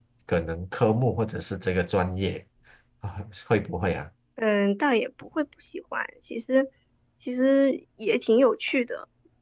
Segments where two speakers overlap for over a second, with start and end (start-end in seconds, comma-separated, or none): none